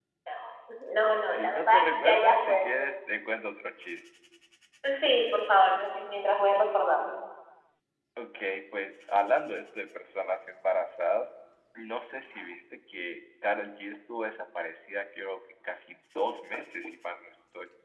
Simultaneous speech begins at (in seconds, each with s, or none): 1.0 s